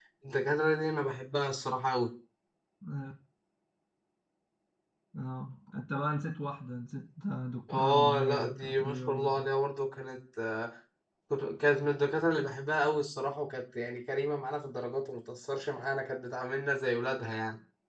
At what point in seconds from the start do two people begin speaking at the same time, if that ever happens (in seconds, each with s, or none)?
7.7 s